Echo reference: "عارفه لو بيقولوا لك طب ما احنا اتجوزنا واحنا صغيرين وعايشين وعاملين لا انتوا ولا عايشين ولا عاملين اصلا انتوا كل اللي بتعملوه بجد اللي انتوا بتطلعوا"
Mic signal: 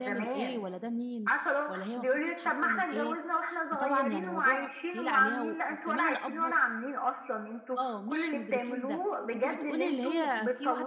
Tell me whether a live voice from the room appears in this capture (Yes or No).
Yes